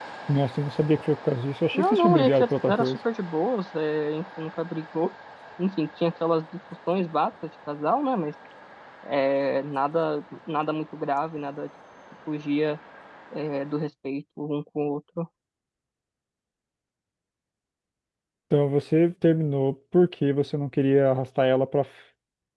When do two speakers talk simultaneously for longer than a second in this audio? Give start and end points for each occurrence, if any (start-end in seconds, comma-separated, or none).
1.7-3.0